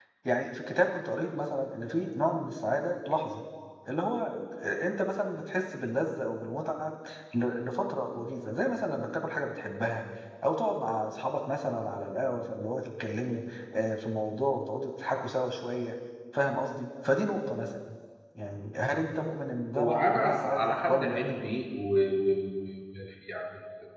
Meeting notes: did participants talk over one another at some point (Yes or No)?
Yes